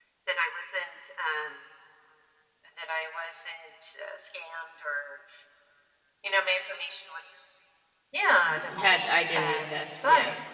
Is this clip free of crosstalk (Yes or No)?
No